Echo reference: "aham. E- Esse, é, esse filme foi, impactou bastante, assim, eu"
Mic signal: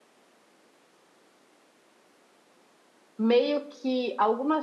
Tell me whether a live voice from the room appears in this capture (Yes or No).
Yes